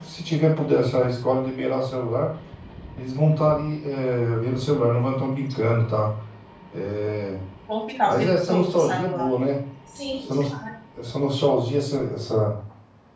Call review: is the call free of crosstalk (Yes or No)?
No